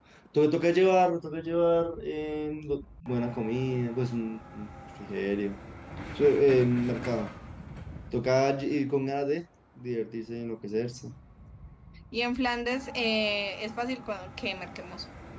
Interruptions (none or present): none